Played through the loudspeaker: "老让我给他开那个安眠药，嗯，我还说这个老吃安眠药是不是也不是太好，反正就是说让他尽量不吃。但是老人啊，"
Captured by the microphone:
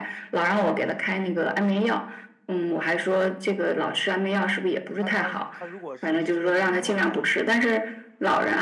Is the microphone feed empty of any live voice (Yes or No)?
No